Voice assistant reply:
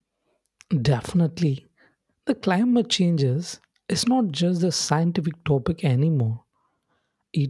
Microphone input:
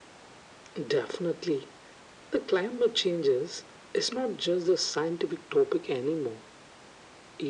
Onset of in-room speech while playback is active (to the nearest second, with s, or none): none